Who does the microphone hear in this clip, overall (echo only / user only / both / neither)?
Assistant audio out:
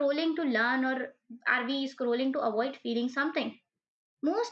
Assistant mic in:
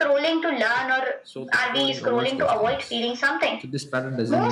both